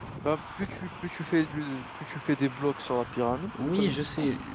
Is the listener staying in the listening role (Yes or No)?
No